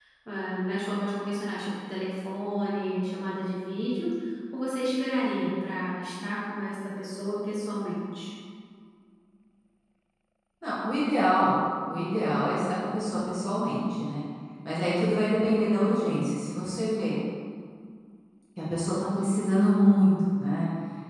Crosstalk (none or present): none